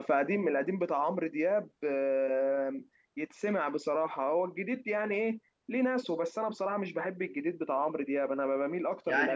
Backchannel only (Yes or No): No